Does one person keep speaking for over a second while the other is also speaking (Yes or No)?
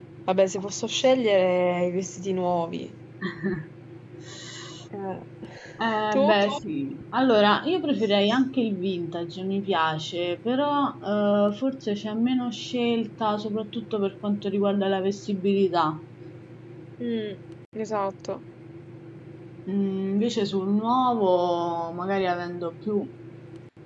No